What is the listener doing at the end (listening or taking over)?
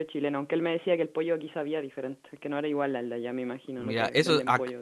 taking over